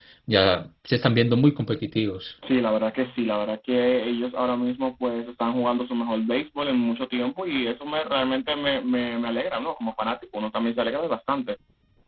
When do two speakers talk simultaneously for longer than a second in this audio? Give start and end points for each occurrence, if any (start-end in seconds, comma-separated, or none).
none